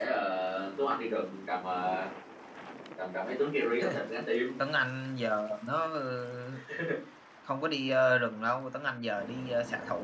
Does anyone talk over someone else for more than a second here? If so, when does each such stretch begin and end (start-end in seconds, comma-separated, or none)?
none